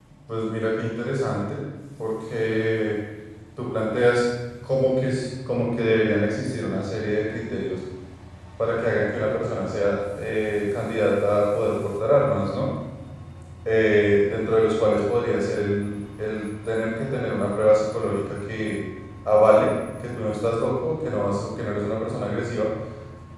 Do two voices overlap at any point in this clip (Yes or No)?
No